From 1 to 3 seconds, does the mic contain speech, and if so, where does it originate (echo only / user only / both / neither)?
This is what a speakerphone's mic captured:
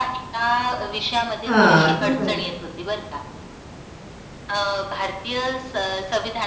both